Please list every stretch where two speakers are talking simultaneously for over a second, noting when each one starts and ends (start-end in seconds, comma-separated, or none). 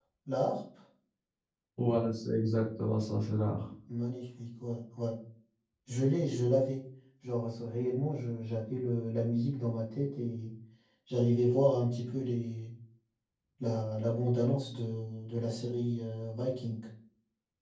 none